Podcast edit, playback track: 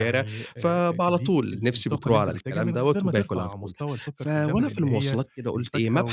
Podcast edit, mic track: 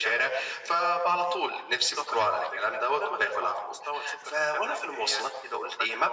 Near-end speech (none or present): none